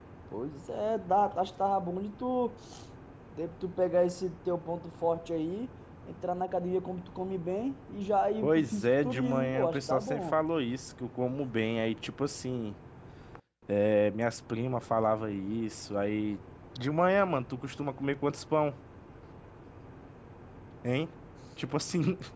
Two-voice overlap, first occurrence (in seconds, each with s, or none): 8.4 s